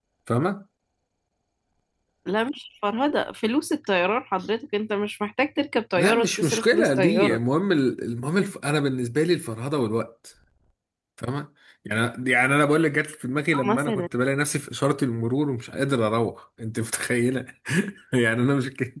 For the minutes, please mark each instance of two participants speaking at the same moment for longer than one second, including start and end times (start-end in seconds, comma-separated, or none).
6.0-7.4